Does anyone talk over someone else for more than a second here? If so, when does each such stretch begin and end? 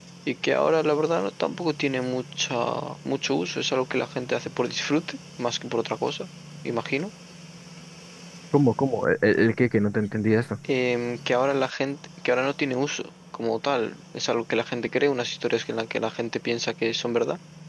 none

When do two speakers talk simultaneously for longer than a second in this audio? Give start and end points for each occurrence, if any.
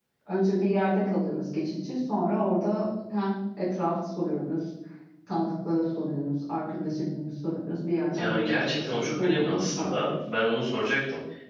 8.2-10.1

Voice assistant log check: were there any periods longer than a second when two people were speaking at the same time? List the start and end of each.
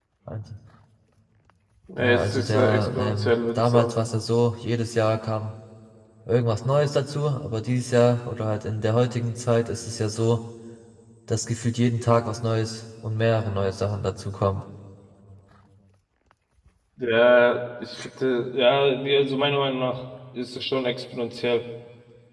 2.0-3.9

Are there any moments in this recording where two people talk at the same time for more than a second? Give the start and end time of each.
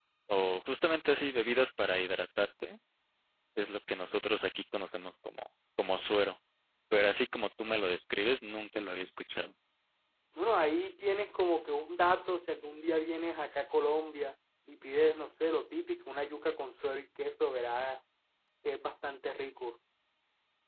none

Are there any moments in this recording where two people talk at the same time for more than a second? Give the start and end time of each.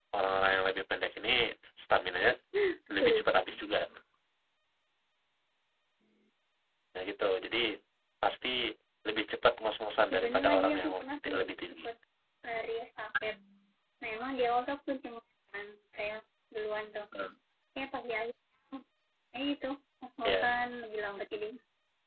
10.1-11.3

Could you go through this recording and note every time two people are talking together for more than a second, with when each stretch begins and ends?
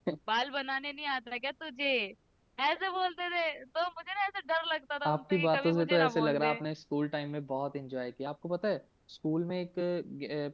5.1-6.6

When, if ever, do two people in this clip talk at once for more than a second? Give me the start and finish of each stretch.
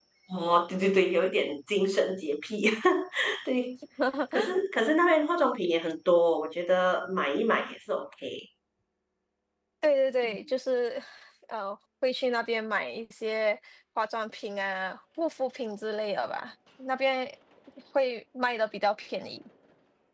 none

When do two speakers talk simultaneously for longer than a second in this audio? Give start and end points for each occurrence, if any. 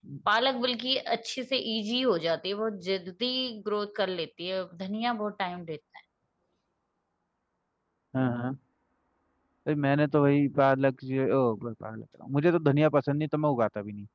none

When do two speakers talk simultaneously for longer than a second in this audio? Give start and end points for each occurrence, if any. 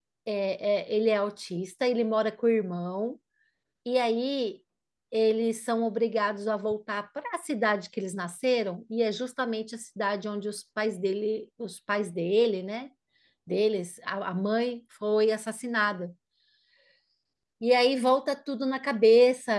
none

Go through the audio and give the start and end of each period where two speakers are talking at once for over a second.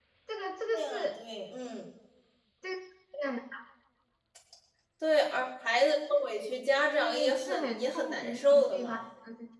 6.9-9.0

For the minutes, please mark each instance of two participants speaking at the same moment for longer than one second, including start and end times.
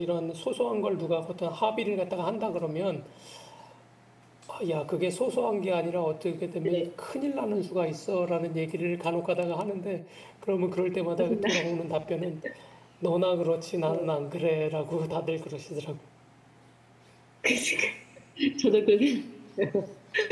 none

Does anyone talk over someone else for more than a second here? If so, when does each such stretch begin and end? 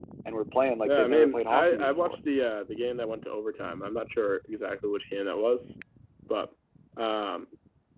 0.8-2.2

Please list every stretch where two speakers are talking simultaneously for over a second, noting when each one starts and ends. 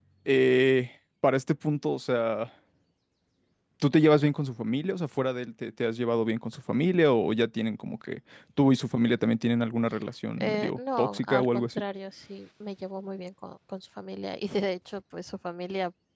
10.4-11.8

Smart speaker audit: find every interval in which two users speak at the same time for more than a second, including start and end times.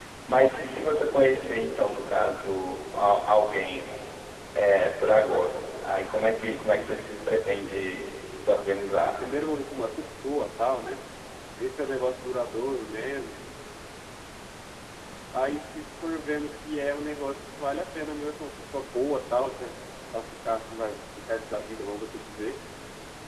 none

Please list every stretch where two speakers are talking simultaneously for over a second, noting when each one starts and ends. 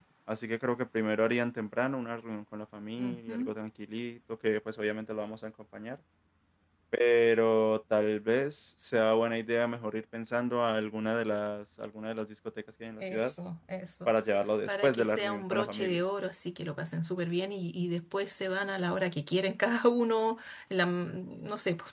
14.7-16.0

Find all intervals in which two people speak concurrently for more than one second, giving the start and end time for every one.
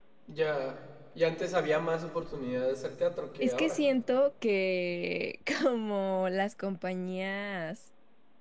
none

